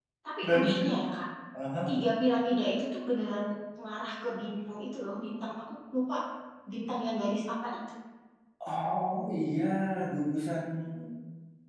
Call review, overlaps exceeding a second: none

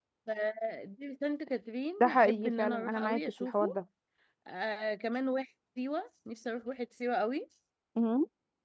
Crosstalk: present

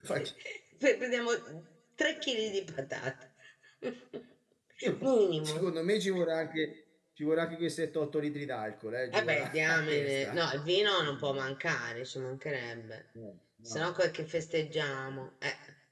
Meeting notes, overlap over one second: present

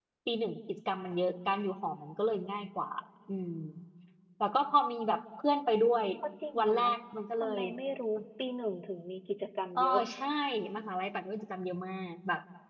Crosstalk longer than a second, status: none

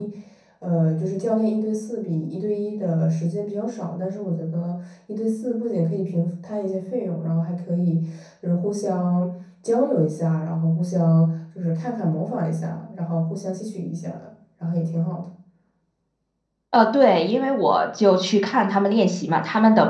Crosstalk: none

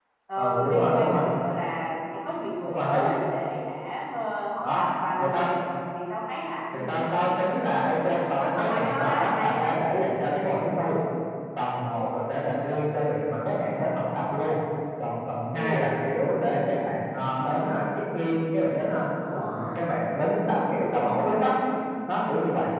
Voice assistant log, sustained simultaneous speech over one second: present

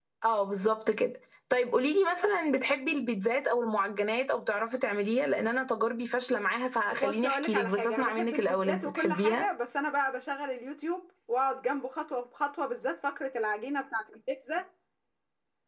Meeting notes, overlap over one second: present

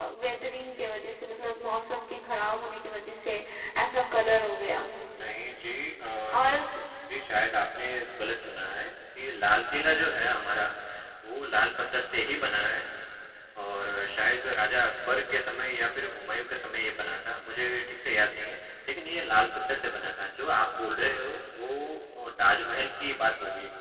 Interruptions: none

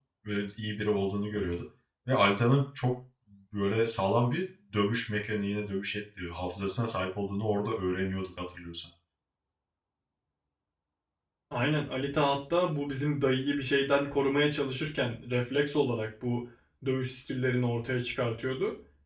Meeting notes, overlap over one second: none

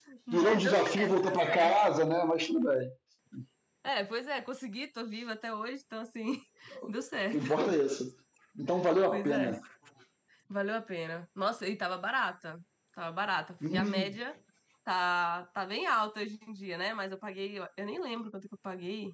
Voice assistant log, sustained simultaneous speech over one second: present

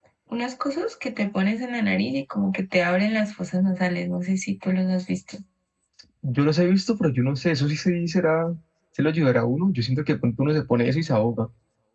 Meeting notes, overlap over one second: none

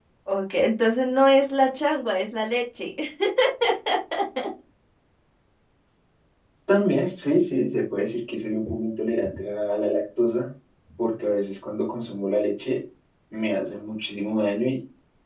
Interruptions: none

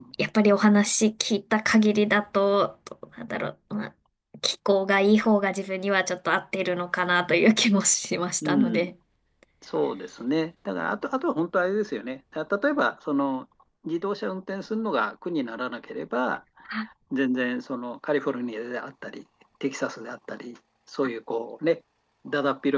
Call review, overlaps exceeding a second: none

